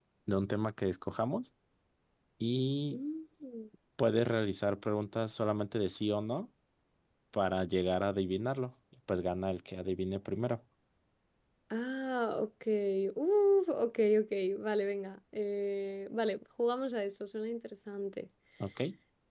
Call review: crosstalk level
none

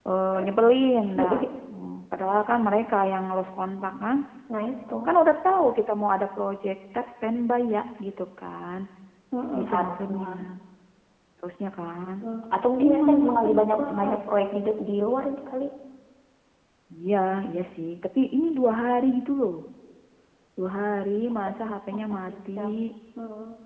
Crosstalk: present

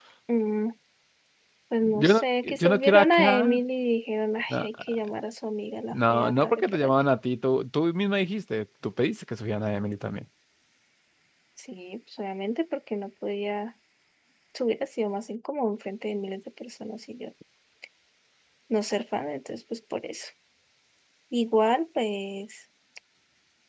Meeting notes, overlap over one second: present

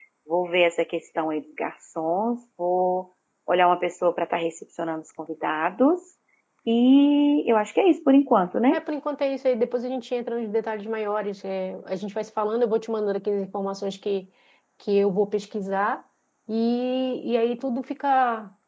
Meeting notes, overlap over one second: none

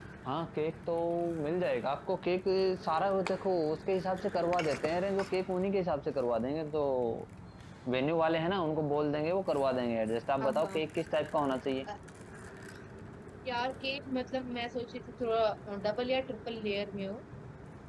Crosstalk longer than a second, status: none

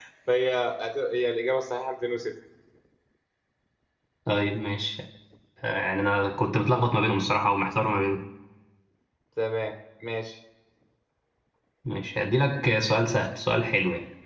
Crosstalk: none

